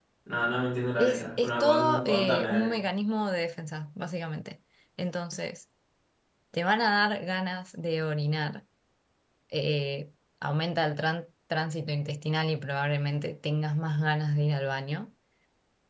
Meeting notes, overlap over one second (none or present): present